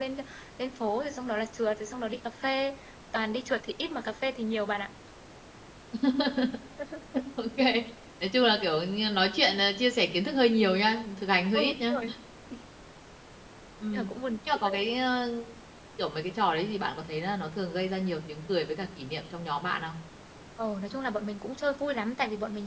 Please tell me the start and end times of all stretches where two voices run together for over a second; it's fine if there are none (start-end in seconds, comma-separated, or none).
none